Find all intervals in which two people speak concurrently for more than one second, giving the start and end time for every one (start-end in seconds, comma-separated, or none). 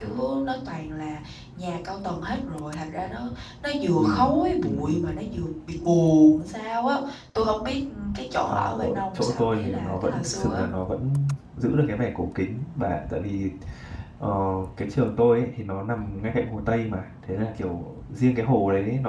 8.5-10.6